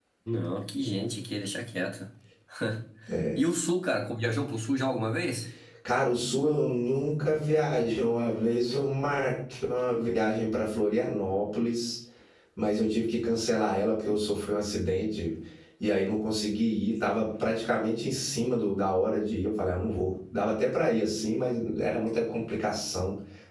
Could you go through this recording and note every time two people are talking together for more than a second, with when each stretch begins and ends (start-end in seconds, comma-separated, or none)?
none